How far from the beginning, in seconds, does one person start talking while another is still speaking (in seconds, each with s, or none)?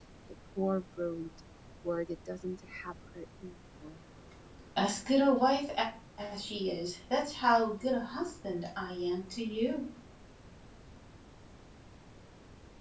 none